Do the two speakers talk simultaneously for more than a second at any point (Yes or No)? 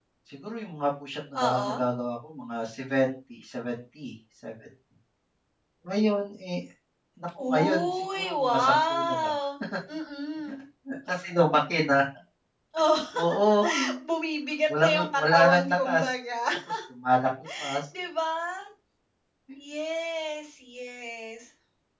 Yes